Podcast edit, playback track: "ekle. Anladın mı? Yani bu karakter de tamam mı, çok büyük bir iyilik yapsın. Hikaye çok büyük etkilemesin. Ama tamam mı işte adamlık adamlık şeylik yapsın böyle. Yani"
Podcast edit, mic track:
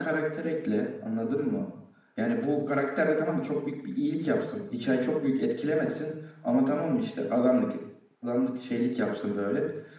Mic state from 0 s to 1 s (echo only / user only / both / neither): echo only